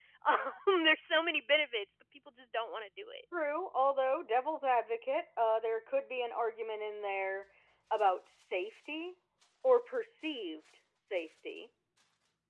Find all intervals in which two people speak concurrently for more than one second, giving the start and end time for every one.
none

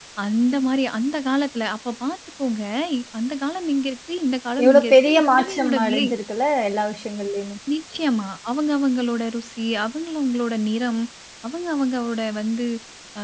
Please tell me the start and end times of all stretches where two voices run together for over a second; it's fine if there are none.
4.6-6.1

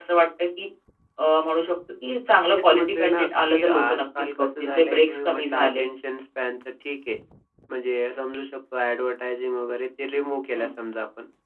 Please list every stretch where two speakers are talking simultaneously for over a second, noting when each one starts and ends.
2.5-5.8

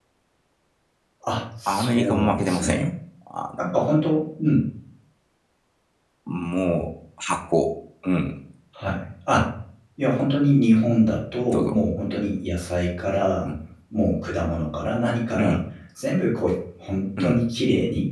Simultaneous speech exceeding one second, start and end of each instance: 1.7-2.9

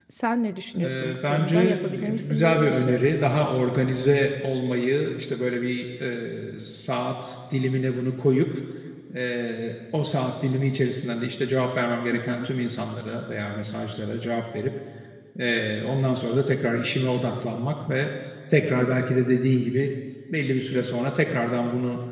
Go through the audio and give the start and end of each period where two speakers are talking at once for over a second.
0.8-3.0

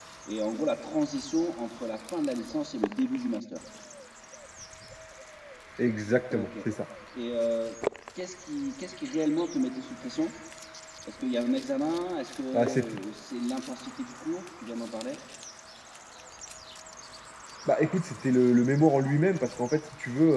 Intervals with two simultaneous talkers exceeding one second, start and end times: none

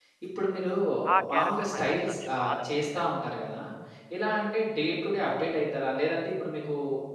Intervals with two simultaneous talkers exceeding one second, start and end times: 1.3-3.1

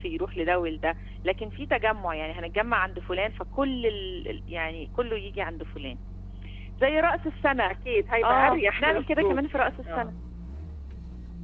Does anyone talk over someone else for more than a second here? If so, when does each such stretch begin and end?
8.2-10.1

